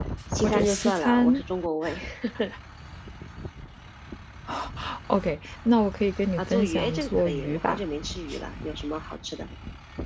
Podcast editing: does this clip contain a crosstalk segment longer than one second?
Yes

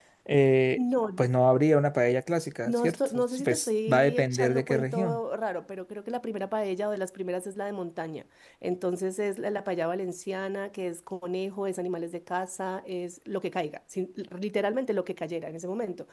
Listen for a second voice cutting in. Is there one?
Yes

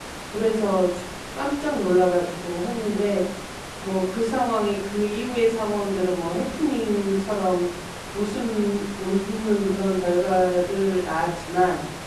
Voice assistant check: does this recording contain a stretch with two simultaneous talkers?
No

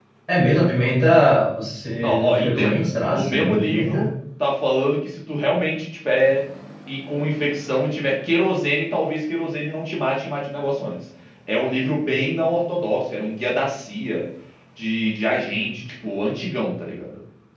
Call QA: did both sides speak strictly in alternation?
No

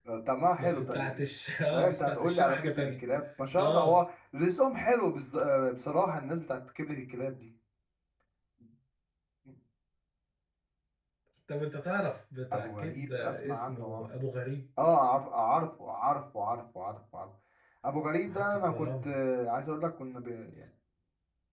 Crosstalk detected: Yes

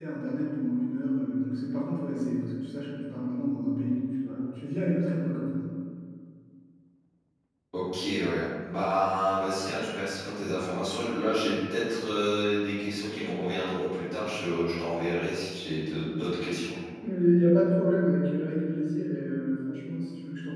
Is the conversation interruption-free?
Yes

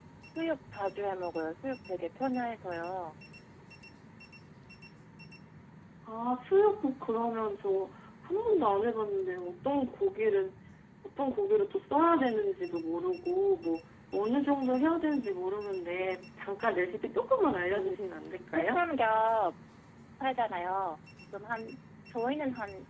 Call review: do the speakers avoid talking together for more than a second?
Yes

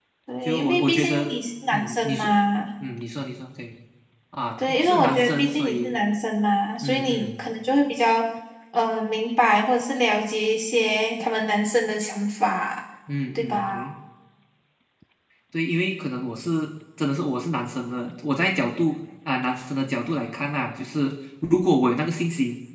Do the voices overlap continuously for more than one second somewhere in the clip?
Yes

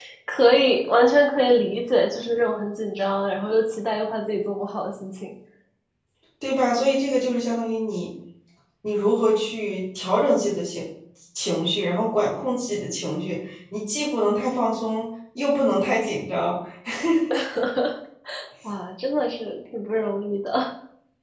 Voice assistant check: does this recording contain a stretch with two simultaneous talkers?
No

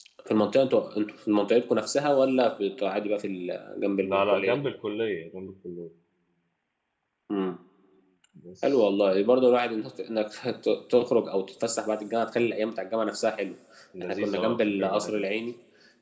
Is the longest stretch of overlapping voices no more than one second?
No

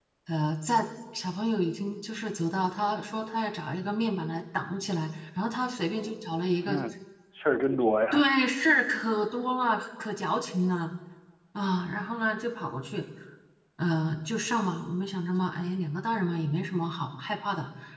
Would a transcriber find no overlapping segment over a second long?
Yes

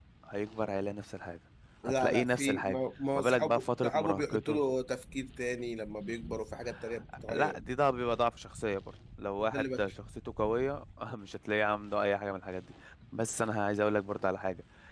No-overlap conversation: No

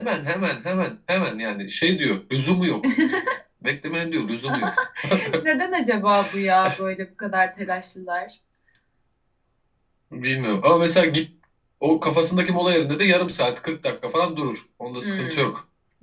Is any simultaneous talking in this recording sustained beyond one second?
No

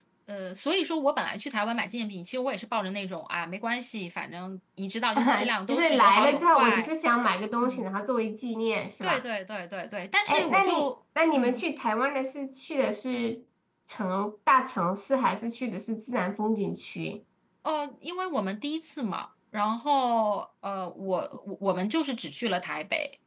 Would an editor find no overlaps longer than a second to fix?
No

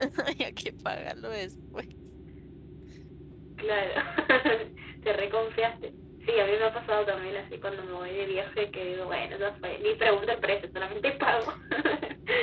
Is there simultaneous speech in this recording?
No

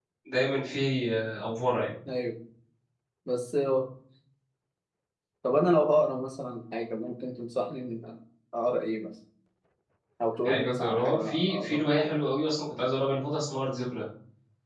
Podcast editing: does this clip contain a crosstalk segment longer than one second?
Yes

